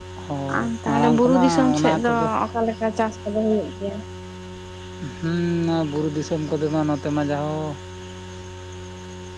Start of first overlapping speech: 1 s

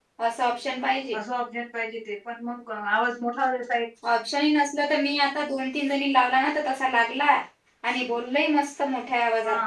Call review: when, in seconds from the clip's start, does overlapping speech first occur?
none

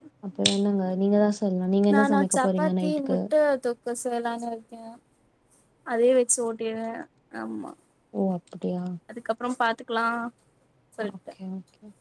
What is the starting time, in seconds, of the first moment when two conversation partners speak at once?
2 s

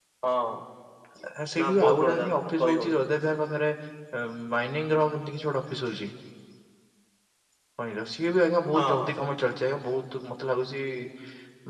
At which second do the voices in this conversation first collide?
2 s

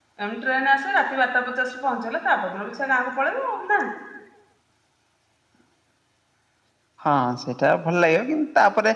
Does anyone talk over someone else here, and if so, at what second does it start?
none

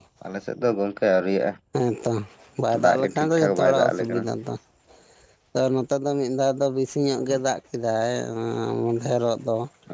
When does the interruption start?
3 s

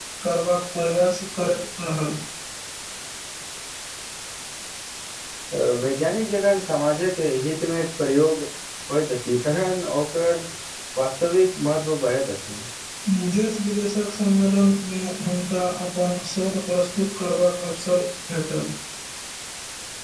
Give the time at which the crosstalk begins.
none

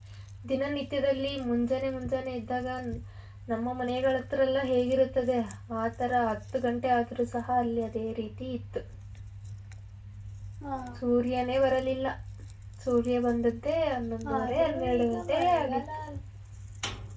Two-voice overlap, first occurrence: 14 s

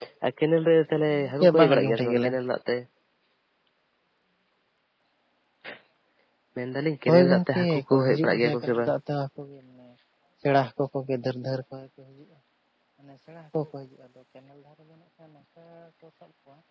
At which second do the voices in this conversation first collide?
1 s

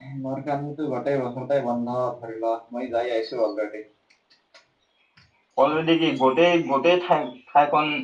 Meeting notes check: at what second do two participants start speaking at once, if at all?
none

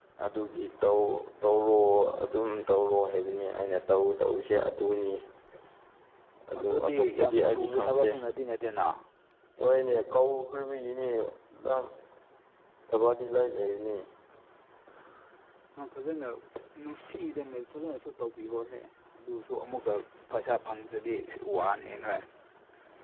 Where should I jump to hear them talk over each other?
7 s

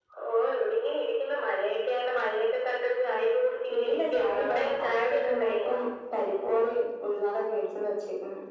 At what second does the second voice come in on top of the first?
4 s

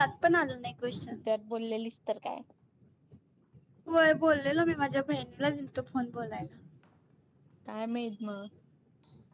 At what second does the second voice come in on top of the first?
none

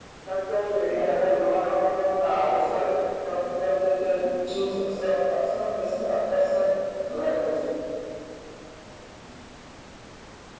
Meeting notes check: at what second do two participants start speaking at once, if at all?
1 s

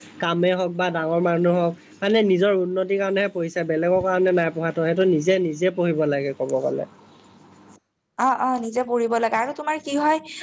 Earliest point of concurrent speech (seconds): none

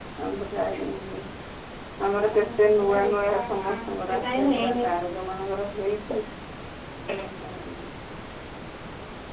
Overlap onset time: 2 s

